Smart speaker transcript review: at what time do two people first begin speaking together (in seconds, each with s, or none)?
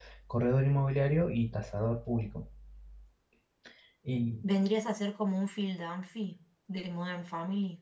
none